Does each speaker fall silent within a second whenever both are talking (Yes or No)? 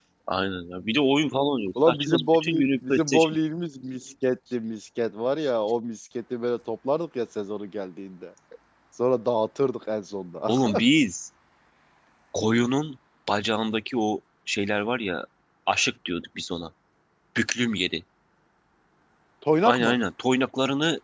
No